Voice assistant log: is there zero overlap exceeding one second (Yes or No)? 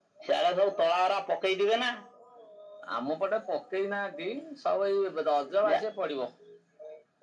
Yes